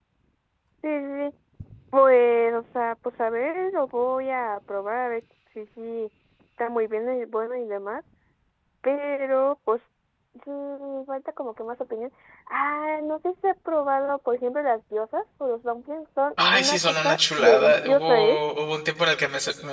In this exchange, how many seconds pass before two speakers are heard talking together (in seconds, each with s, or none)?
16.4 s